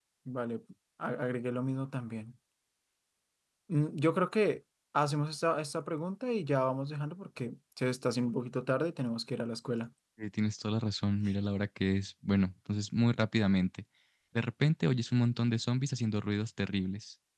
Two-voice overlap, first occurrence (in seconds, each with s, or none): none